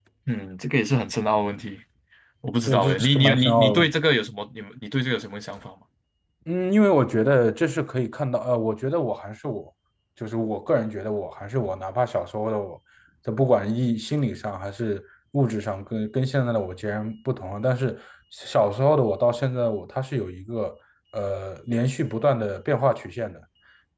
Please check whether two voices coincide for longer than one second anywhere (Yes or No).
Yes